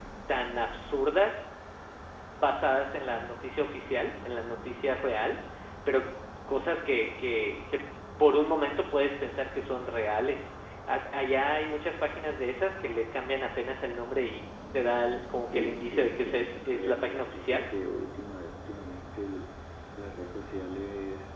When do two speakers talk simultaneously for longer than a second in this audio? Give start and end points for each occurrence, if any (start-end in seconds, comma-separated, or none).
15.5-17.6